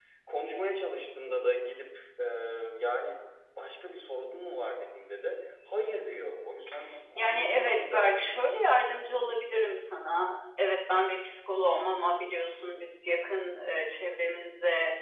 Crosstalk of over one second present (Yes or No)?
Yes